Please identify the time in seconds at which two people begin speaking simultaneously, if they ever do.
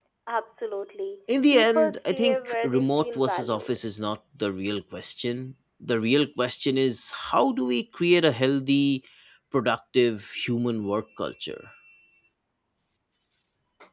1.5 s

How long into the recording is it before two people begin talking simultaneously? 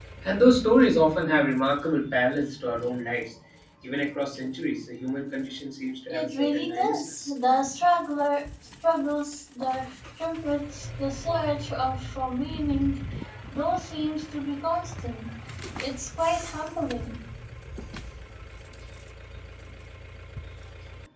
6.1 s

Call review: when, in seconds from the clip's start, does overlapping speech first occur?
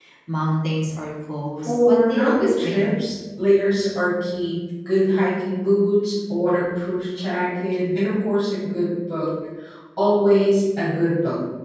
1.6 s

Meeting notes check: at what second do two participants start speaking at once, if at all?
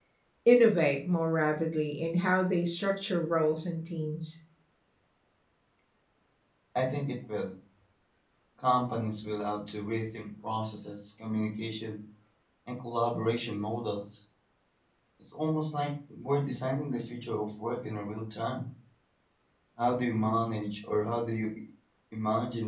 none

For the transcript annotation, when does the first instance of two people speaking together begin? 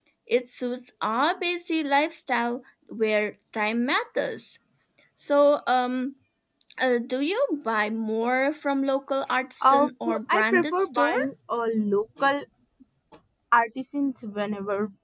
9.6 s

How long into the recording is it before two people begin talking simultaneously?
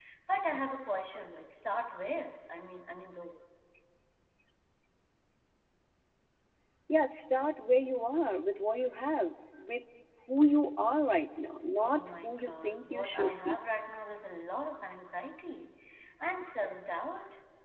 11.8 s

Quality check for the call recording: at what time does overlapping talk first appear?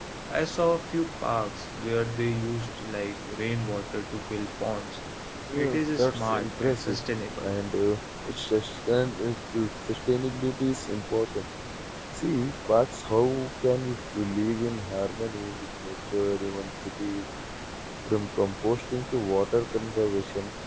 5.6 s

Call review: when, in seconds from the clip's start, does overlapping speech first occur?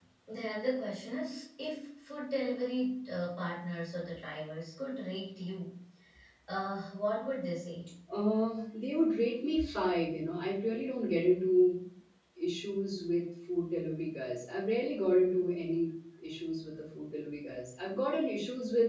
none

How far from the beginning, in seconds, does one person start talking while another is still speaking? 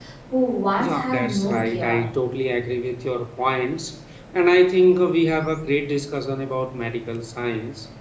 0.8 s

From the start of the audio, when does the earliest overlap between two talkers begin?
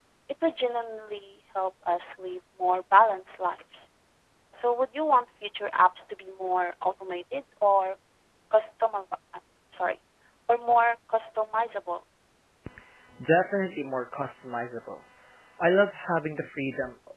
none

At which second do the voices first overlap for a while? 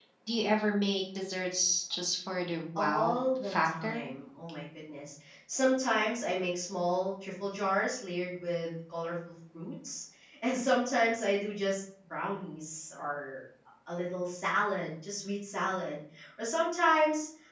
2.8 s

